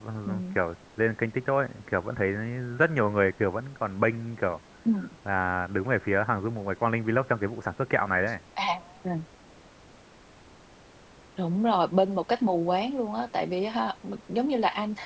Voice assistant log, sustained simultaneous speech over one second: none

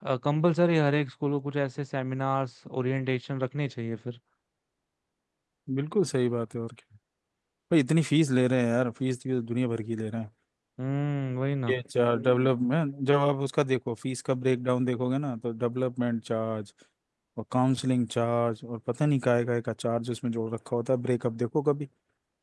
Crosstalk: none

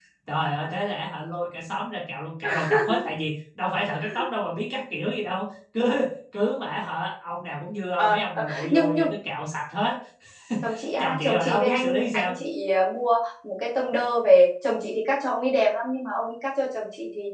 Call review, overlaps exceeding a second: present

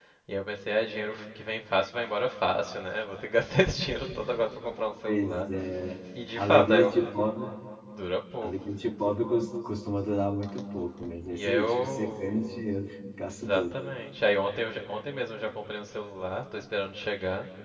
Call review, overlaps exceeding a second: present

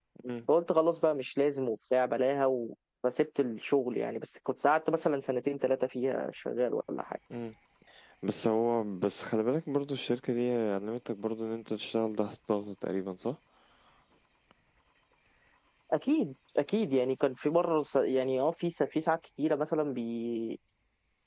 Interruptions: none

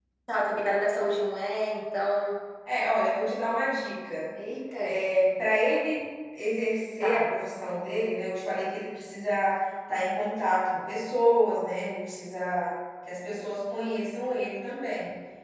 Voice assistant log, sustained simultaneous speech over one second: none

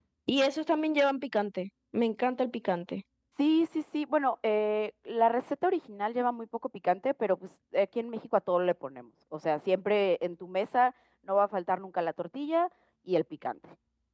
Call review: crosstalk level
none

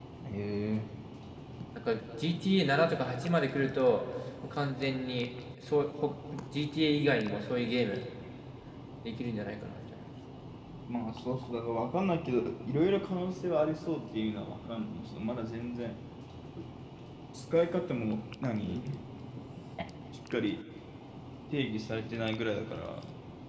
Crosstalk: none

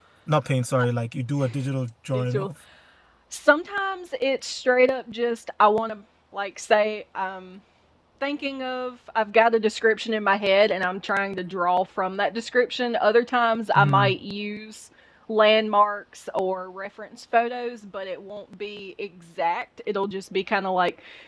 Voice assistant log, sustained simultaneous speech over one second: none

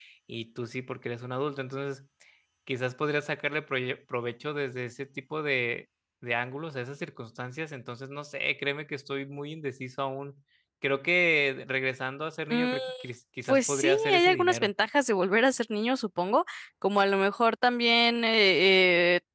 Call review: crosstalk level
present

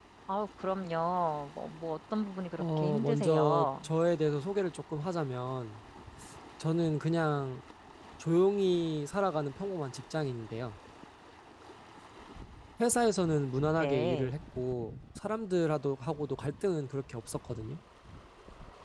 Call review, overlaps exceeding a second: present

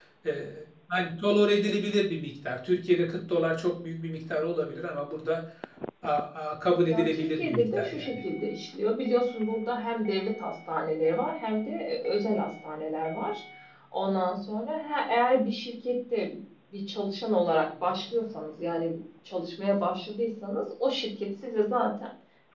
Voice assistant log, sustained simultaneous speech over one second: present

